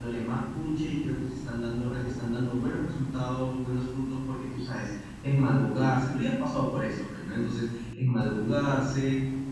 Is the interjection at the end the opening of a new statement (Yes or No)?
No